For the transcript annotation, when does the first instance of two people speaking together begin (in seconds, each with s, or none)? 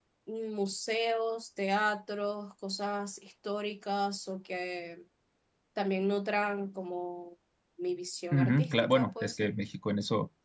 8.3 s